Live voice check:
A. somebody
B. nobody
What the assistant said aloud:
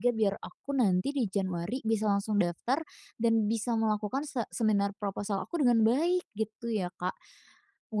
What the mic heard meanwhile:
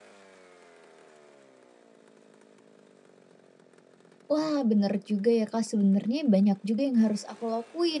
A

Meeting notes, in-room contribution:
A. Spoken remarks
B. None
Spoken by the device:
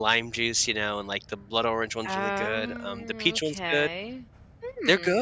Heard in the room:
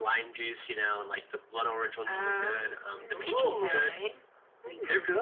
A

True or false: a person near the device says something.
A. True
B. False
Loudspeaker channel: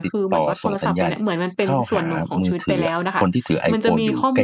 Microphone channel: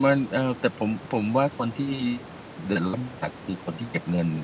A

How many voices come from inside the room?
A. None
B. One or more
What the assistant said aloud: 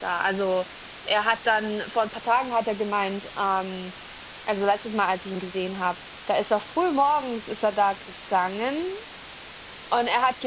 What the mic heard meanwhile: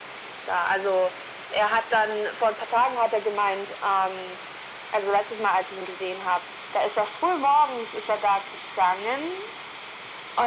A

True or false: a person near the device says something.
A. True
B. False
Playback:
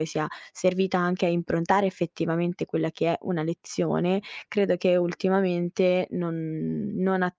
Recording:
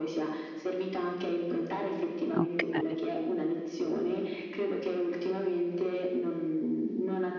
A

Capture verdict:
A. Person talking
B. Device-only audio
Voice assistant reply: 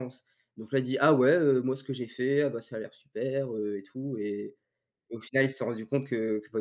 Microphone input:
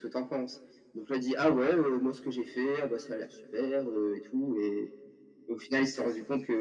B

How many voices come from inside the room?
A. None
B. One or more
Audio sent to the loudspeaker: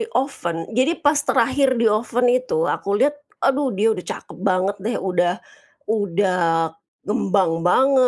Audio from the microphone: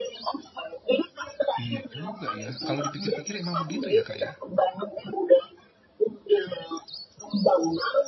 B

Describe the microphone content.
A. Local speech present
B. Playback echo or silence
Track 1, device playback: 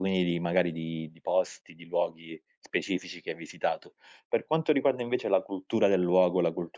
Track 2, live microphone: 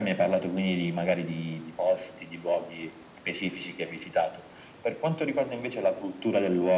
B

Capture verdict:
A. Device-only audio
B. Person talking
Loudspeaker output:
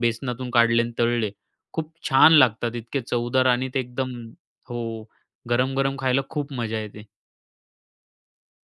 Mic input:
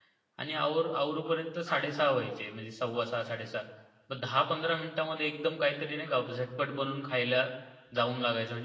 B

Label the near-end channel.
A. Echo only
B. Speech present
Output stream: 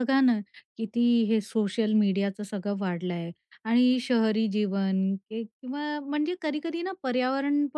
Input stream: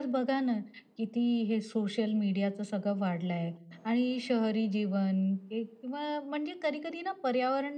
A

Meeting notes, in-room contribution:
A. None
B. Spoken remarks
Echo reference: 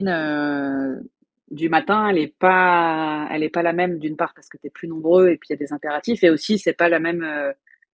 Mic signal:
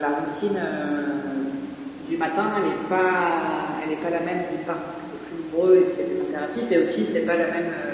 A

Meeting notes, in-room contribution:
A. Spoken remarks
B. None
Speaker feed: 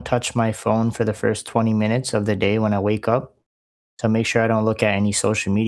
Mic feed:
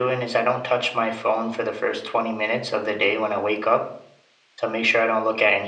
B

